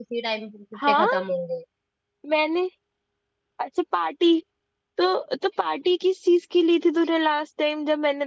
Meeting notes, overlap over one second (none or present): none